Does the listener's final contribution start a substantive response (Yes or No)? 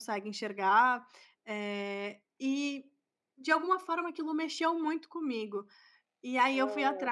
No